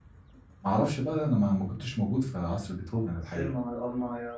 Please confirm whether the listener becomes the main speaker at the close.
Yes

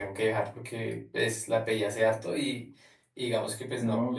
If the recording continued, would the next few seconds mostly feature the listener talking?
Yes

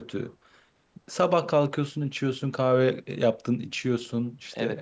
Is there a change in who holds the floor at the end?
Yes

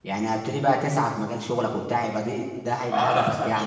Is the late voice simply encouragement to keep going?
No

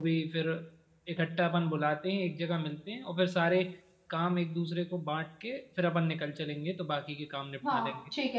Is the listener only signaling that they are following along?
No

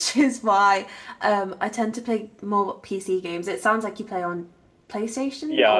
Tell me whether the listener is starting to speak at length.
Yes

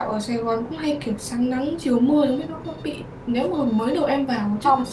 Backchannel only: Yes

